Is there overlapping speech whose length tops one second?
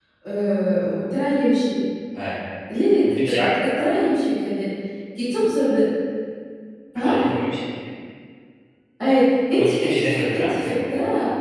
Yes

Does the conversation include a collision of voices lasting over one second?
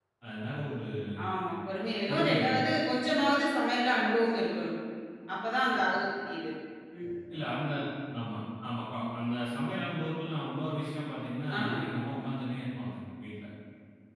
No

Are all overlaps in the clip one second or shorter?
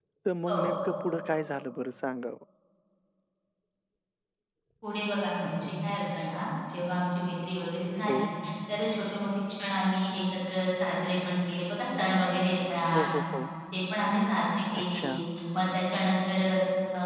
Yes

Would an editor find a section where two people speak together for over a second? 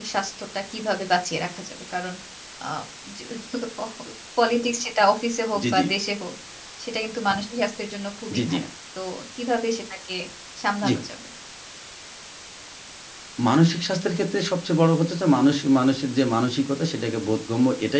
No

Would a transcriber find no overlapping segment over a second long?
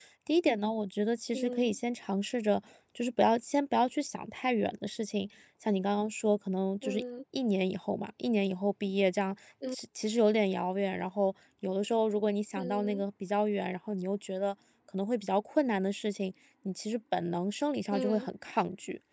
Yes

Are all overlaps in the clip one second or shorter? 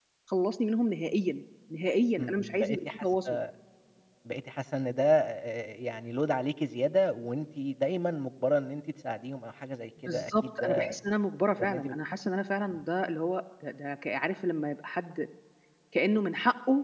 No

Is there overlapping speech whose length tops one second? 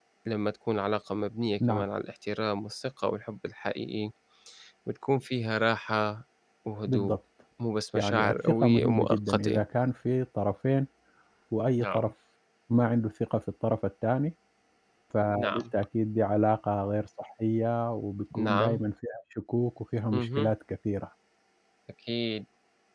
Yes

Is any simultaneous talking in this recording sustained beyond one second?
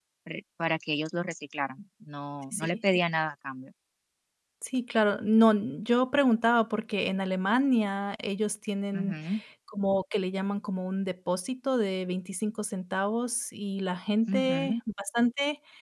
No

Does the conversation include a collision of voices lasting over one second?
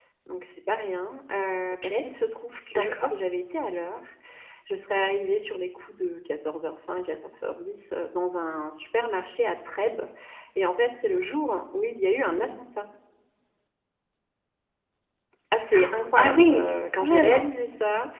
Yes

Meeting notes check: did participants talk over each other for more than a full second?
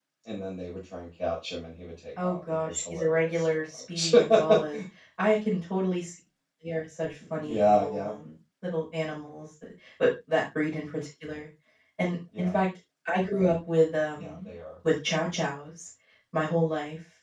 Yes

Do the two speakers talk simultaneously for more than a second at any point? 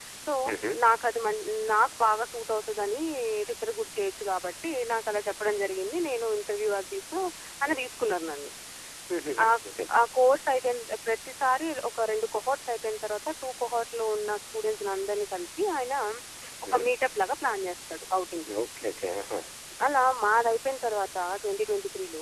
No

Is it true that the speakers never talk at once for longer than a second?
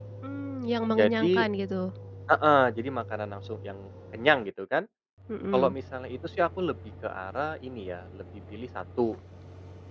Yes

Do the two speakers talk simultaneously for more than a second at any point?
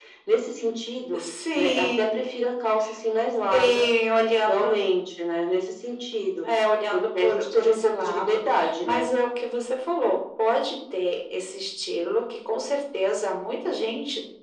Yes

